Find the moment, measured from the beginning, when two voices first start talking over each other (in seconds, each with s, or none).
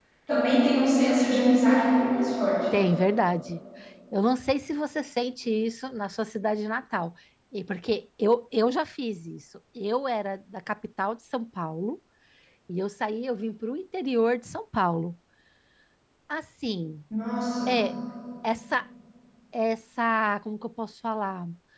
none